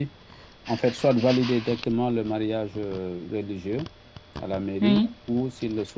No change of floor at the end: Yes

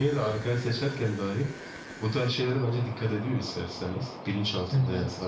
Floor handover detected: No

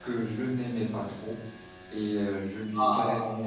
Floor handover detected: No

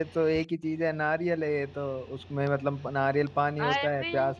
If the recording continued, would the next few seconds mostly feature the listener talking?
No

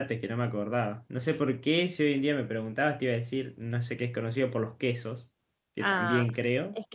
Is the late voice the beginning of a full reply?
Yes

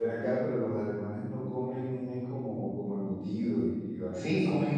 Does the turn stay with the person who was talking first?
No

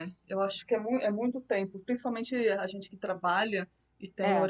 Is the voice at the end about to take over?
No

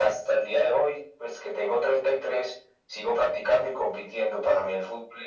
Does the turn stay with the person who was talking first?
Yes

